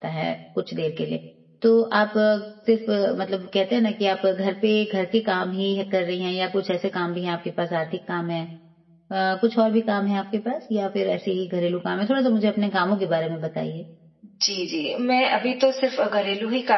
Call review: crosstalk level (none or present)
none